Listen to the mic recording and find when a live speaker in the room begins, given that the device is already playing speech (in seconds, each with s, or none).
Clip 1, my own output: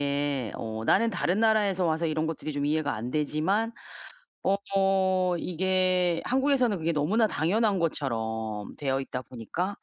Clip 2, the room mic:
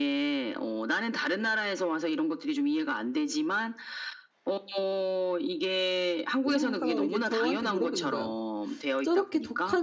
6.4 s